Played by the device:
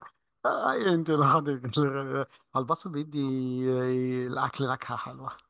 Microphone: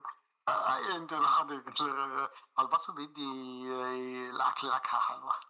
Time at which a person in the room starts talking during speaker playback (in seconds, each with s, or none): none